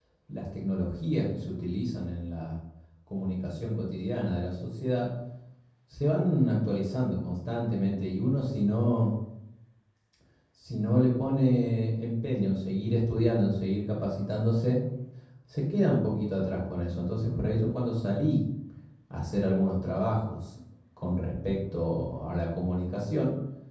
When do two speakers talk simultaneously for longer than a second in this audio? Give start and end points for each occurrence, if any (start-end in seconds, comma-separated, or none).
none